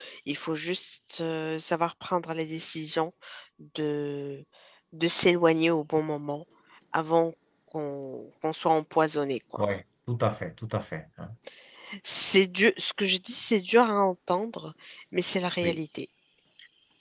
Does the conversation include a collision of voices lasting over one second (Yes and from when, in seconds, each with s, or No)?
No